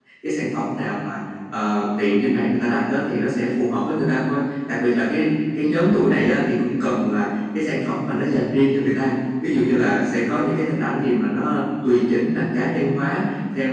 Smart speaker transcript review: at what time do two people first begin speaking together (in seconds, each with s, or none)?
none